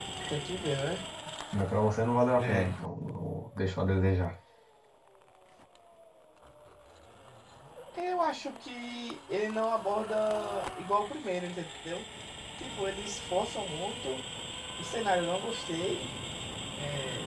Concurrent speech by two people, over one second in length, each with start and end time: none

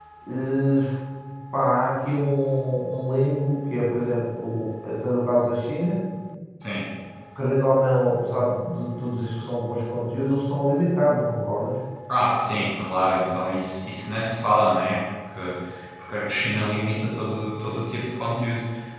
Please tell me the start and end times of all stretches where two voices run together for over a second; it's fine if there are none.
none

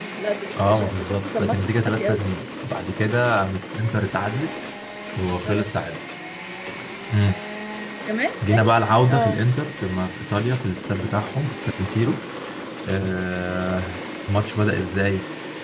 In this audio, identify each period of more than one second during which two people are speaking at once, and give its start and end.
0.7-2.2

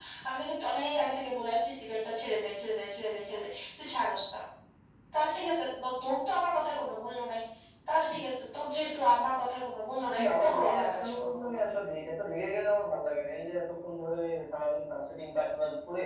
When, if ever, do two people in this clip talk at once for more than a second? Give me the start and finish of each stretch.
10.2-11.6

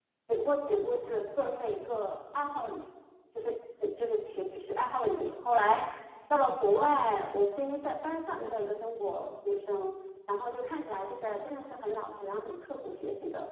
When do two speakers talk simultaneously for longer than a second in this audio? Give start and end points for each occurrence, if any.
none

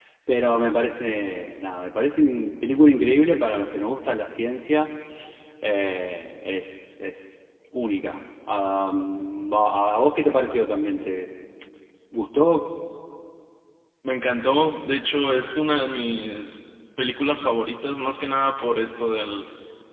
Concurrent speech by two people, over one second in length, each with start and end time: none

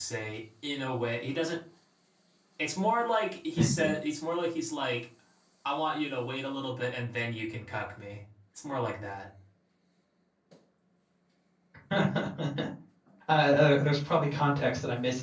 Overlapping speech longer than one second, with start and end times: none

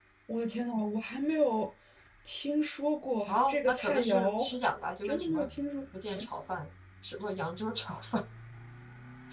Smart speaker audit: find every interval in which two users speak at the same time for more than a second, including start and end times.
3.3-4.5

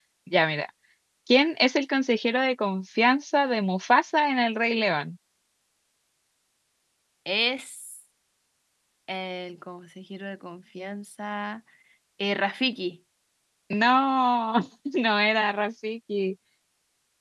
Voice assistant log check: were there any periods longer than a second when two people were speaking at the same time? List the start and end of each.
none

